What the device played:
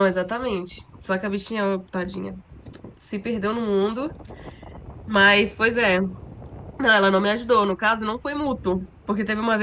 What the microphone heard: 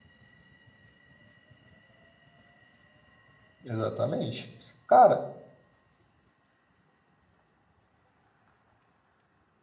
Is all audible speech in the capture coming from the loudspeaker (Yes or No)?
No